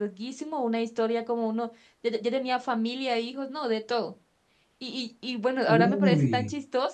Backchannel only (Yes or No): Yes